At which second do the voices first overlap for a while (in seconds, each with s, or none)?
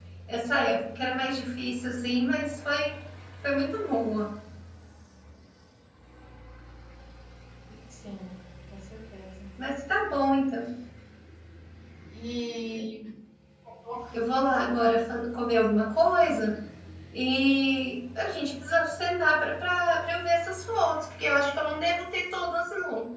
none